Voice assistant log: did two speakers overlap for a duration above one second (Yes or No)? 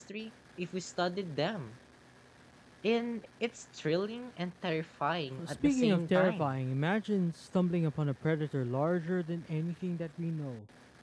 Yes